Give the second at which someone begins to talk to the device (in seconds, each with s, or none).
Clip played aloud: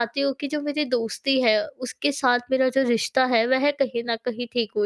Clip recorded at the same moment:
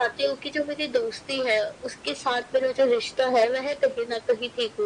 none